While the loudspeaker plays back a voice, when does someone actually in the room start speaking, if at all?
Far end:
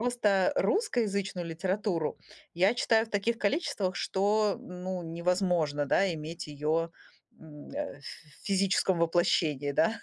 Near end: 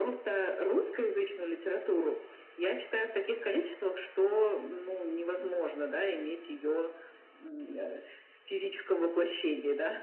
none

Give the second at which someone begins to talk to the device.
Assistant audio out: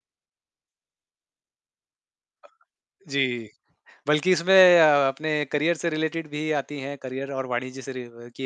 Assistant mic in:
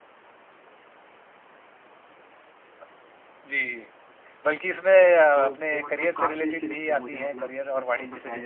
5.3 s

